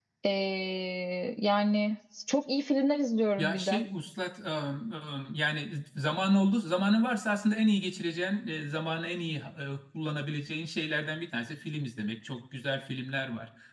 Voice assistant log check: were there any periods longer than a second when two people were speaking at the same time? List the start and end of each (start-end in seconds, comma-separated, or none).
none